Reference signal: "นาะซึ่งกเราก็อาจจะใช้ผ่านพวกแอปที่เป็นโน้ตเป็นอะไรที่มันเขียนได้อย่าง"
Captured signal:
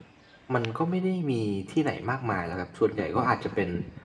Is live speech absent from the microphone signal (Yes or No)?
No